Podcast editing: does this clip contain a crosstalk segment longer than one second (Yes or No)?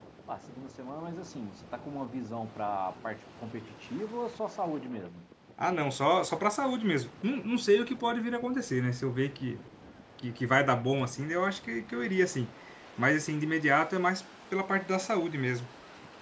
No